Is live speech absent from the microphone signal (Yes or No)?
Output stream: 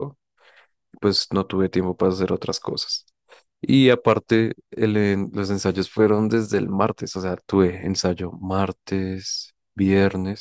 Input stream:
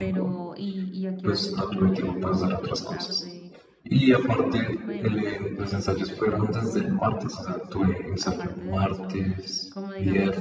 No